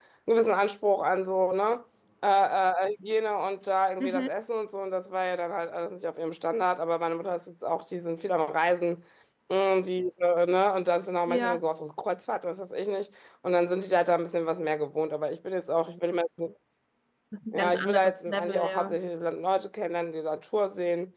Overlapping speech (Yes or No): Yes